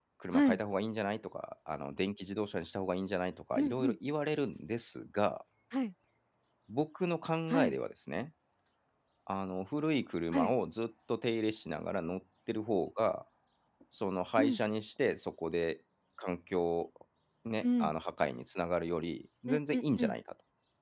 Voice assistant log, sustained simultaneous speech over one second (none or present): none